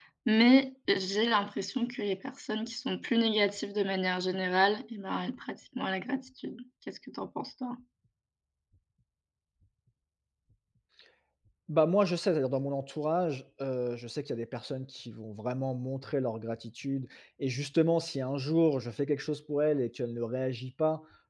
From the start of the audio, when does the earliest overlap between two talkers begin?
none

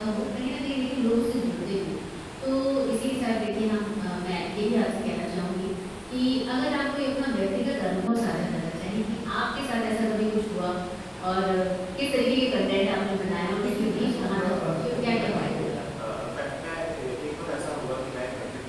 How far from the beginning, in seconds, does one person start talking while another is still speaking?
13.6 s

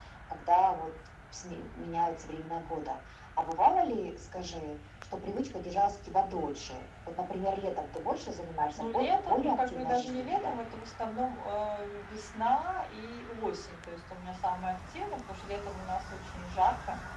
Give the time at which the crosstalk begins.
8.8 s

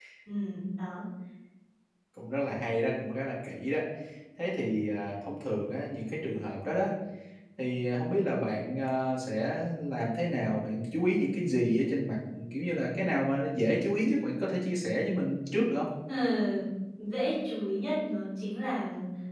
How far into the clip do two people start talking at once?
none

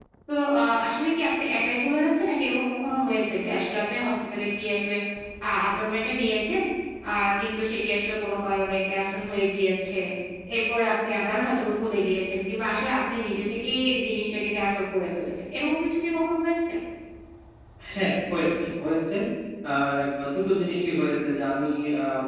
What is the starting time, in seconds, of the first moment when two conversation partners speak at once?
none

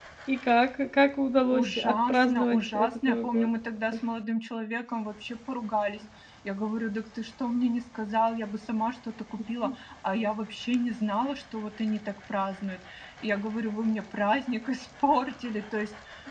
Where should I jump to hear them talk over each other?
1.5 s

